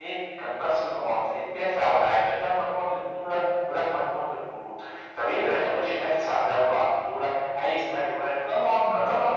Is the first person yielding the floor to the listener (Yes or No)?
Yes